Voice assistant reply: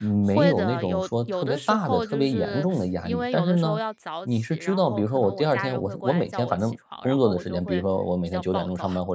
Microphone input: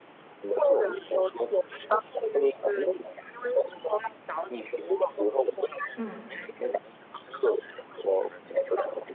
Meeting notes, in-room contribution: present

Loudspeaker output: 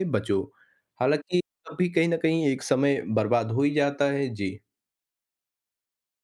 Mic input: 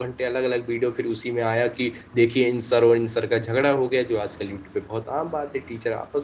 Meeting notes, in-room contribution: present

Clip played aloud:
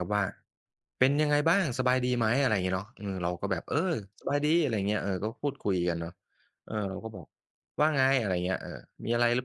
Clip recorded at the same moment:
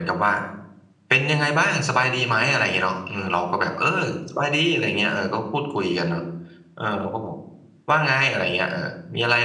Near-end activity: none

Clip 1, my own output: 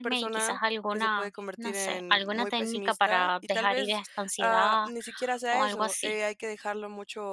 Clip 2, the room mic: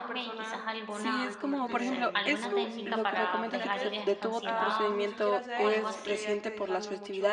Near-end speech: present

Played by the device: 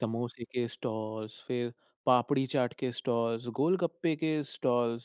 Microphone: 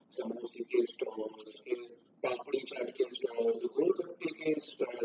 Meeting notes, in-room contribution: none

